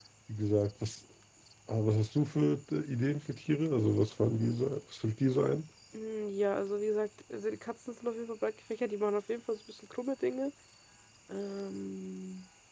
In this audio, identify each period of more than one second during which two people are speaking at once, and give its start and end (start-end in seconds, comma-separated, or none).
none